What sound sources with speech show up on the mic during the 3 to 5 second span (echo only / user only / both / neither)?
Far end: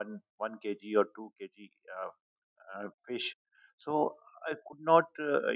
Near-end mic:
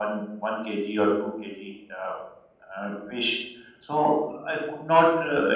echo only